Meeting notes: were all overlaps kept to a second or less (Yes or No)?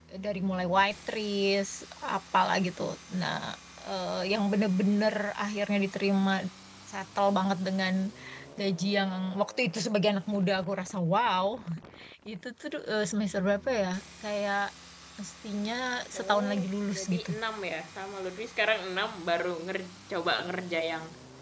Yes